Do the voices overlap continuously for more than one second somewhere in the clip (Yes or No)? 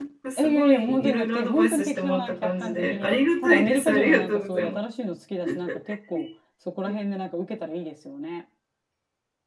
Yes